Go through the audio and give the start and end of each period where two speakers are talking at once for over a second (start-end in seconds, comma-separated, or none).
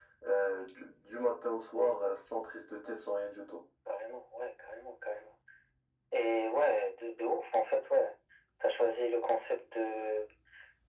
none